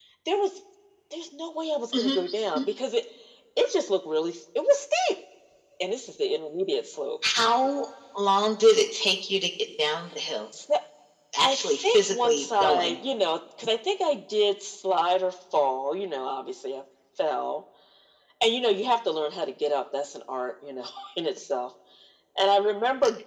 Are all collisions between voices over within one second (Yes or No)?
No